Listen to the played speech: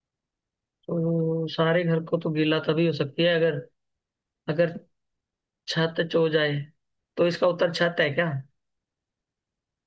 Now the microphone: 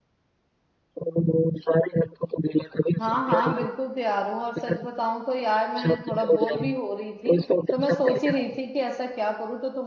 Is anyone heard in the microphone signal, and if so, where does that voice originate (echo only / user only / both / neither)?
both